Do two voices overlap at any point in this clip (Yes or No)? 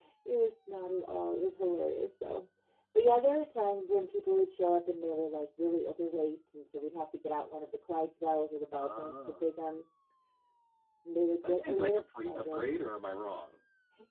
Yes